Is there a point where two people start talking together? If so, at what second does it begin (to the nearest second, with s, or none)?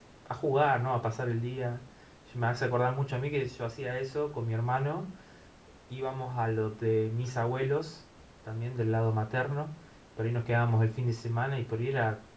none